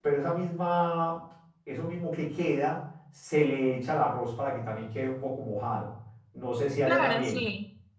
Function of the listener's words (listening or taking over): taking over